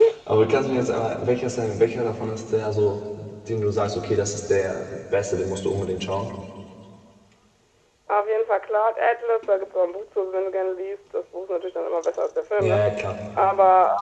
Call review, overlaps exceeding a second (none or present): none